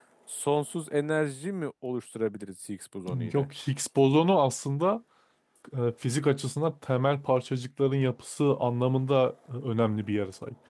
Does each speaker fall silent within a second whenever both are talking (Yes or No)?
Yes